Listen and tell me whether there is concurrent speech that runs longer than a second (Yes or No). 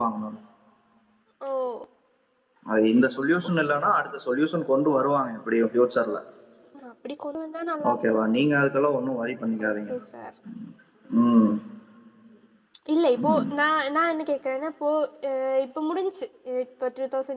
No